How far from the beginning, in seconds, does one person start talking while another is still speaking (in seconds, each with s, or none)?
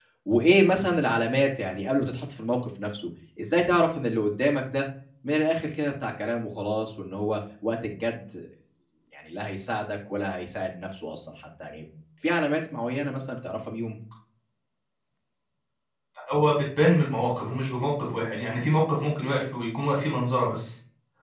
none